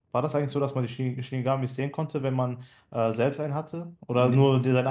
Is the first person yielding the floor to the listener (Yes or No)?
Yes